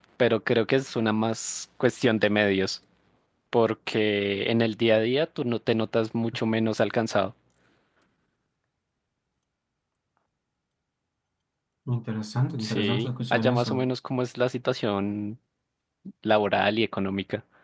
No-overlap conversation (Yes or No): No